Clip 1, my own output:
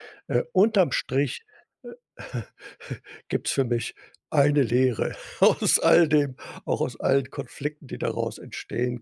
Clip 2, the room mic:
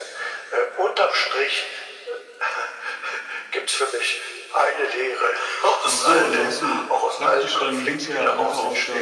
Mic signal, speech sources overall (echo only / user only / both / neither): both